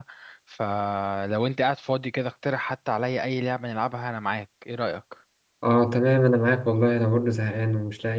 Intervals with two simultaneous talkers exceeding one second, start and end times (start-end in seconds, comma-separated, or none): none